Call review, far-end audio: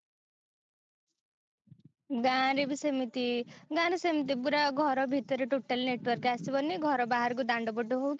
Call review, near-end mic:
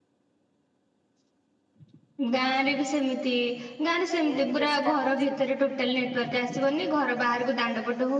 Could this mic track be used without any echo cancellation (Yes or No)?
No